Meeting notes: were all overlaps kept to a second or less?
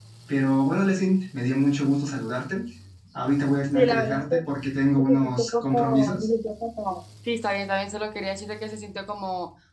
No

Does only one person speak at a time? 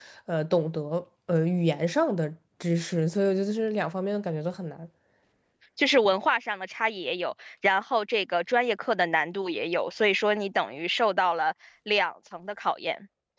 Yes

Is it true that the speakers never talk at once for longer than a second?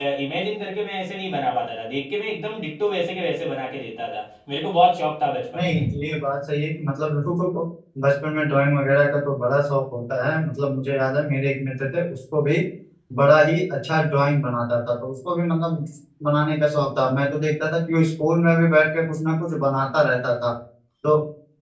Yes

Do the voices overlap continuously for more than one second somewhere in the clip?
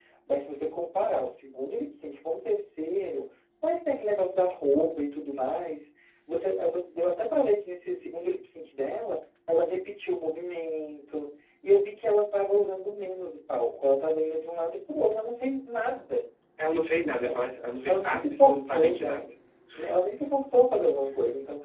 Yes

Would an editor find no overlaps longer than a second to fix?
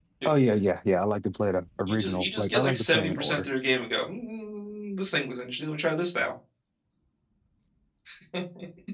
No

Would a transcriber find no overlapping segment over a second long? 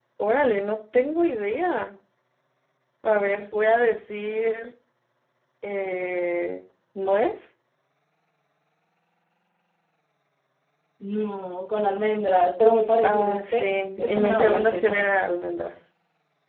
No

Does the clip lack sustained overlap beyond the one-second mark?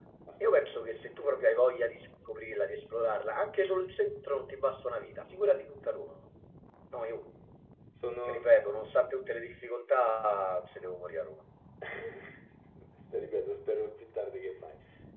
Yes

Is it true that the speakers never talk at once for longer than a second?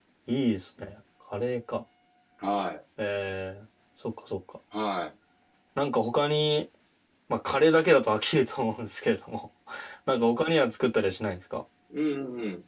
Yes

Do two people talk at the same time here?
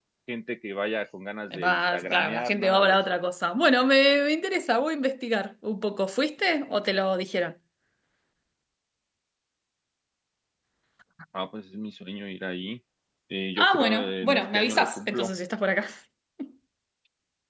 Yes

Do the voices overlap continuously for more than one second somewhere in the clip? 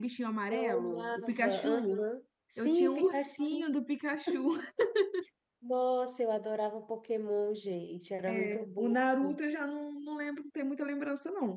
Yes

